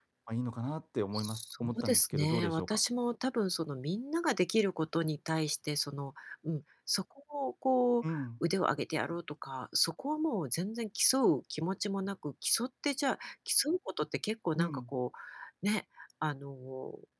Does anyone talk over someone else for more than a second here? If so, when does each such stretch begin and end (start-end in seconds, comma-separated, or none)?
1.1-2.8